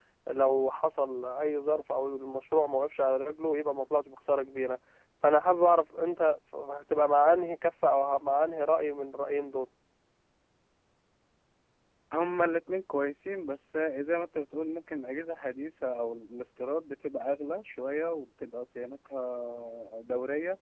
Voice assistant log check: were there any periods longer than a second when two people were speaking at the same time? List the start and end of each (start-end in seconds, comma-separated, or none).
none